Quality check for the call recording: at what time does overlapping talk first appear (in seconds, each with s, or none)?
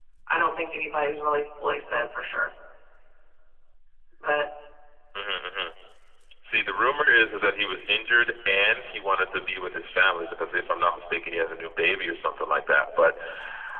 none